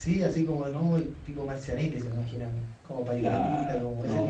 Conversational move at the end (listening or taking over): taking over